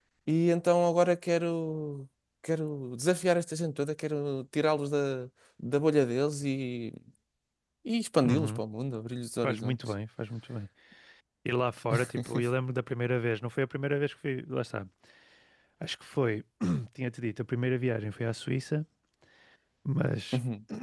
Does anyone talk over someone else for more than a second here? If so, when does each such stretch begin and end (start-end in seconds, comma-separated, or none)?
none